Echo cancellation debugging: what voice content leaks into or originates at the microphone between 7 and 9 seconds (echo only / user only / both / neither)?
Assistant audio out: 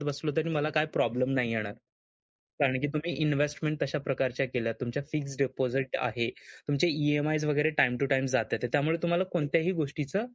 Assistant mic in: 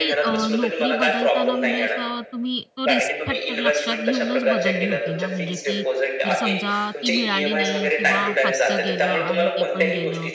both